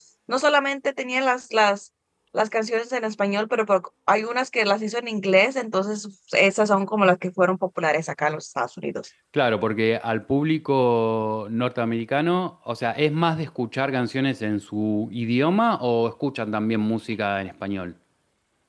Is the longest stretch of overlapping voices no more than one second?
Yes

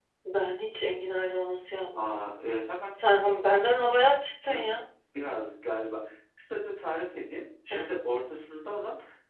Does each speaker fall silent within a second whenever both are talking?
Yes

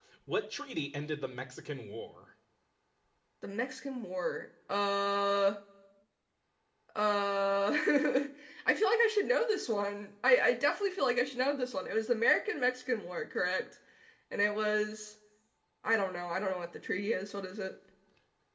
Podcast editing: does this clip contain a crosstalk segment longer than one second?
No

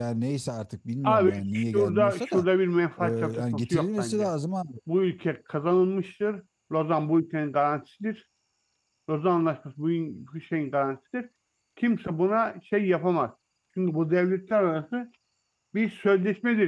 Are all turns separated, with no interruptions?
No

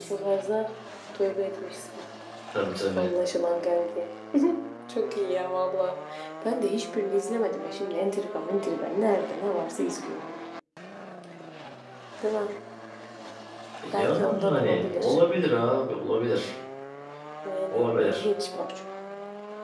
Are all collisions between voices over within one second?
No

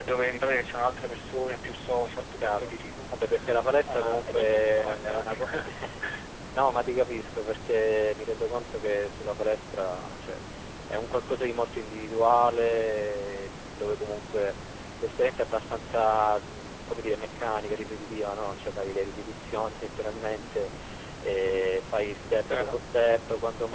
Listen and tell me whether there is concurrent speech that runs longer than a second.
Yes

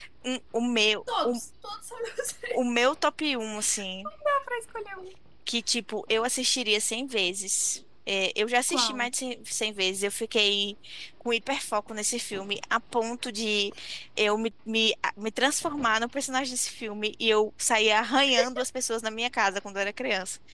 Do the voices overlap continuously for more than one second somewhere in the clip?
No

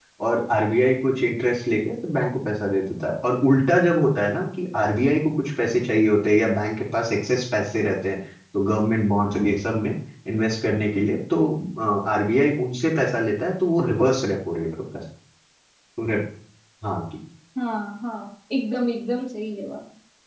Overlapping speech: No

